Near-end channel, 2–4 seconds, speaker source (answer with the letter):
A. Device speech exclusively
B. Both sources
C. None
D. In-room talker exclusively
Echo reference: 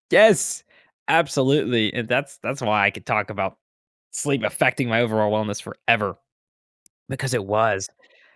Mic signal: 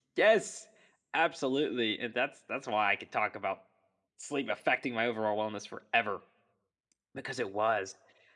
A